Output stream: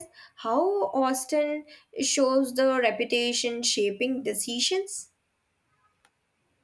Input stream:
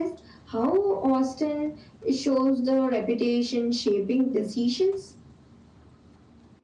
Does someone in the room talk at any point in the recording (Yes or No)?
No